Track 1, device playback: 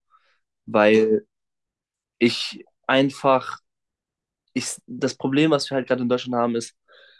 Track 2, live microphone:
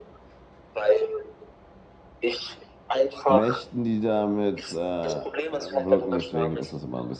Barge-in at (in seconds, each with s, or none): 3.2 s